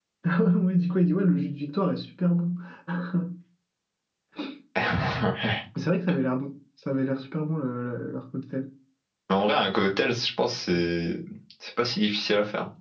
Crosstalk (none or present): none